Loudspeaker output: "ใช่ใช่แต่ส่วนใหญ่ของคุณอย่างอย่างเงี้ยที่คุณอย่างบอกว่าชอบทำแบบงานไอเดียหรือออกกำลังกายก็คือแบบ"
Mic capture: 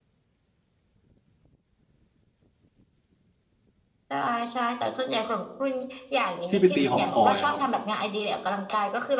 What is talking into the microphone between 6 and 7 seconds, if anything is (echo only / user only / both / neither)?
both